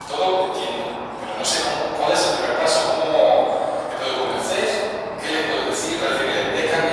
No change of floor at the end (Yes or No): Yes